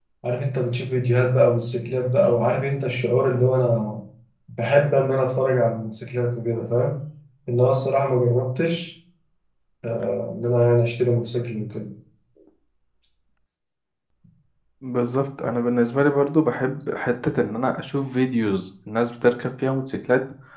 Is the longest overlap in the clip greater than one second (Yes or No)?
No